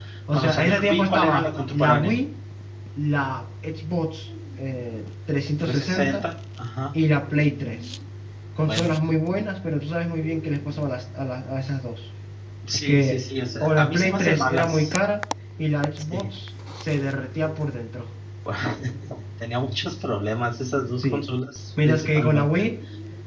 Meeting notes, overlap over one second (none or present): present